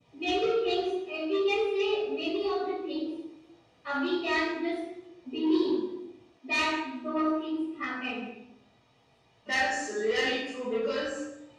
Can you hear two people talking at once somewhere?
No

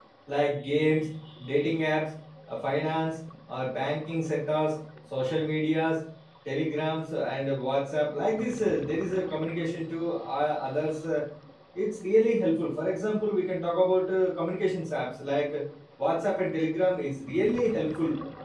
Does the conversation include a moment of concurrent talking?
No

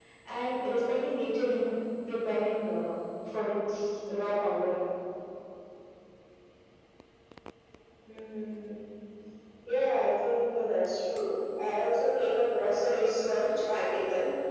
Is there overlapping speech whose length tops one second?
No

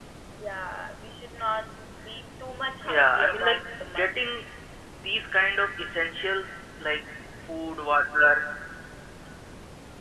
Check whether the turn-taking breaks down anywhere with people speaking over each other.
Yes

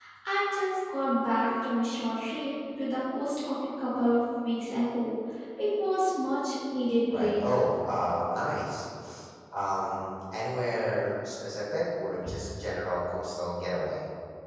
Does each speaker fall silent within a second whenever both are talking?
Yes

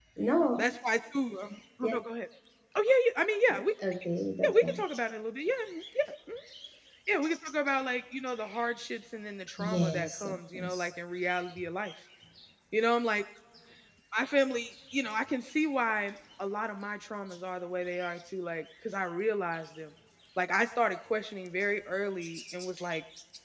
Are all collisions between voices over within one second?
No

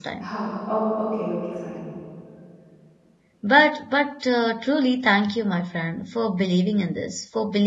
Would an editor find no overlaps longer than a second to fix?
Yes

